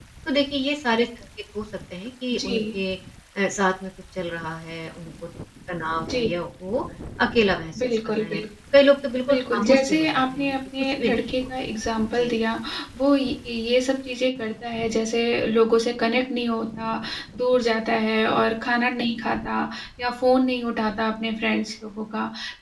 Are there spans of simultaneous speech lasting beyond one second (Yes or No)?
Yes